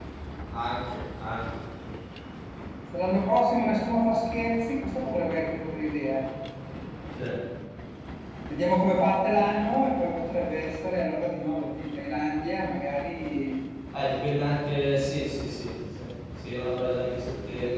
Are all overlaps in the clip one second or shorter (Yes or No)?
Yes